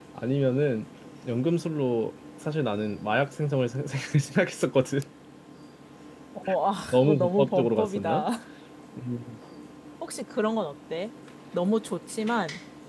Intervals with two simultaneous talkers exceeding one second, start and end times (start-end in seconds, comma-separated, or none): 6.9-8.2